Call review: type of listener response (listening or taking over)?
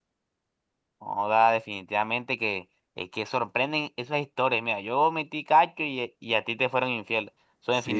listening